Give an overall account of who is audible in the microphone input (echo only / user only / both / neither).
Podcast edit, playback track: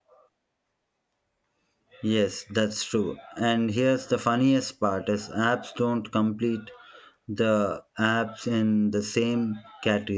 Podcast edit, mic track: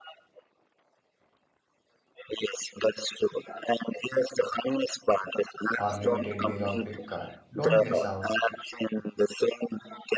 both